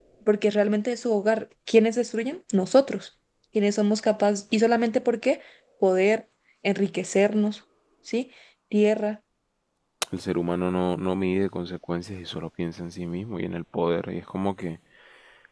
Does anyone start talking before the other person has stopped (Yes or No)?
No